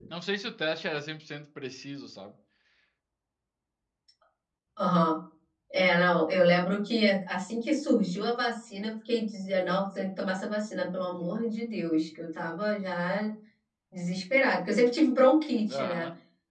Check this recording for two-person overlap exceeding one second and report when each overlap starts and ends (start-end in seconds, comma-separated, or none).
none